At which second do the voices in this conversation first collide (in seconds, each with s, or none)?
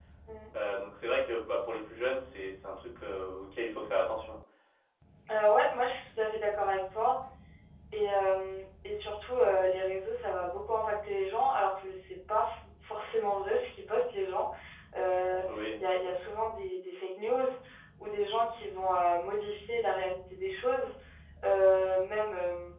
none